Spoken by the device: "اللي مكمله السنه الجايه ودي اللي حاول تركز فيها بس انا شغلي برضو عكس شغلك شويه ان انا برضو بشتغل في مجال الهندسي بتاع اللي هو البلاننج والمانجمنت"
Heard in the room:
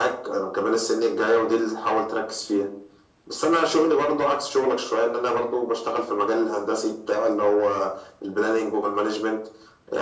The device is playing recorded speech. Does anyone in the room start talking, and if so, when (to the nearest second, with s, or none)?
none